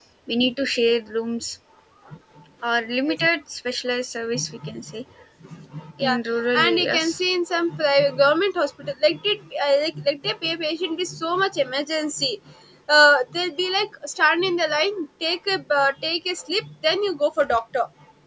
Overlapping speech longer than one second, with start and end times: 6.0-7.2

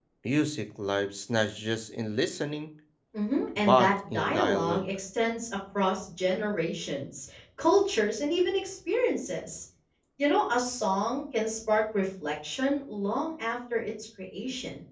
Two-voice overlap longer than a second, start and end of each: 3.6-4.9

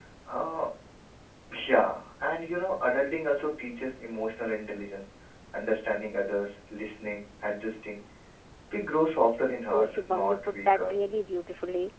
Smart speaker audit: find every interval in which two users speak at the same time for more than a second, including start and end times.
9.7-10.9

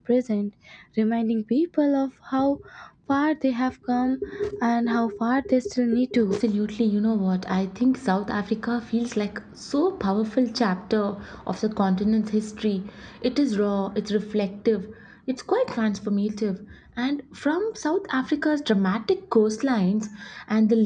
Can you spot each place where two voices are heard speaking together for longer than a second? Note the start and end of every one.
none

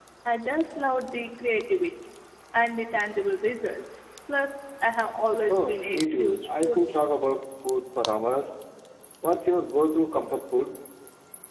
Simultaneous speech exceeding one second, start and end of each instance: 5.5-7.0

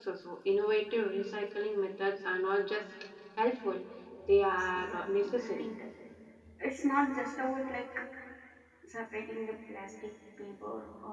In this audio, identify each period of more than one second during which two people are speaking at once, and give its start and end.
4.4-5.7

